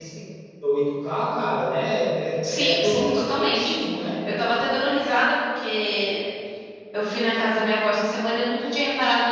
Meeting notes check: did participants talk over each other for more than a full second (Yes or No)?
Yes